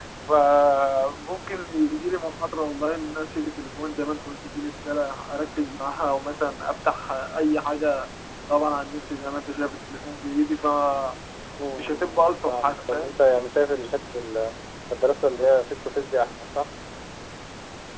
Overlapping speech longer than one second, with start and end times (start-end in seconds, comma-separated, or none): 11.9-13.1